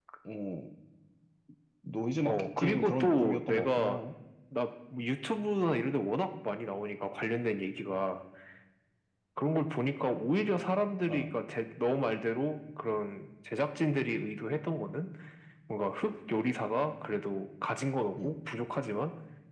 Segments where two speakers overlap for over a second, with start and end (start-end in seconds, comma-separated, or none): 2.2-4.0